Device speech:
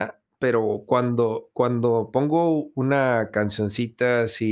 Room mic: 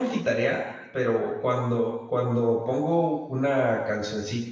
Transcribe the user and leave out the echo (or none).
none